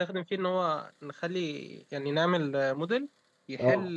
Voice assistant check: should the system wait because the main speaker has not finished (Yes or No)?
Yes